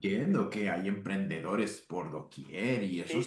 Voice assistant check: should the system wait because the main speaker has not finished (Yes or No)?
No